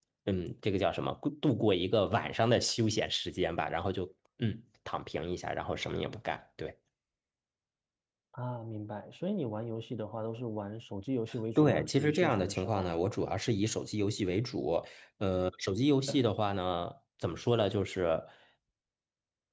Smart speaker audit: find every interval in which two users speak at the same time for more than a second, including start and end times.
11.6-12.9

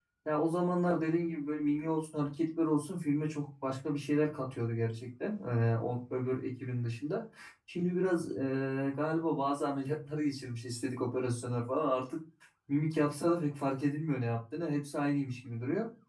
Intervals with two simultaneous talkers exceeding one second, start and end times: none

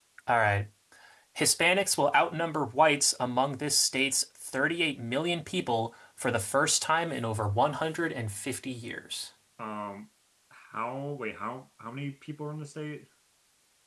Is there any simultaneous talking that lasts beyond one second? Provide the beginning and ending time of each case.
none

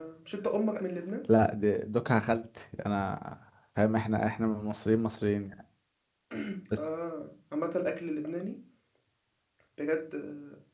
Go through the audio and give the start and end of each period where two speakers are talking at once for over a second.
none

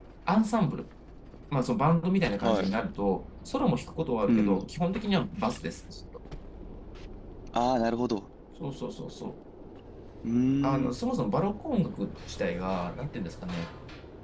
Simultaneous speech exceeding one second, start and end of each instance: none

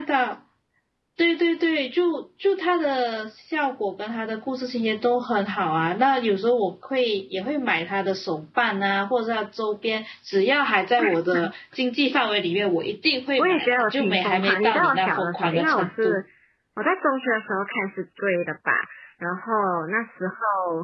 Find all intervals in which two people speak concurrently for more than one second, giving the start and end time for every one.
13.4-16.2

